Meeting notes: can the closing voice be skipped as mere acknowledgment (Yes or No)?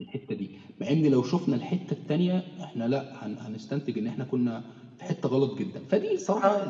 Yes